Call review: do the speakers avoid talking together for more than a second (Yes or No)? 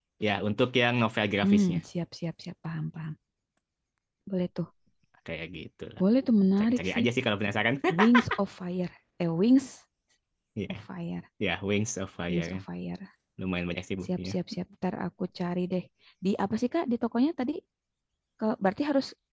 Yes